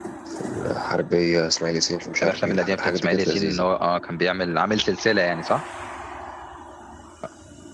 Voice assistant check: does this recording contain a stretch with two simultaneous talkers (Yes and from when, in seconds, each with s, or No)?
Yes, from 2.2 s